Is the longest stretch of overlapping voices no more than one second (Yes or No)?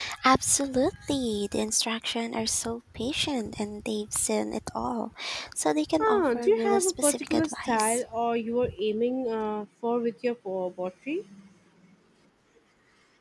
No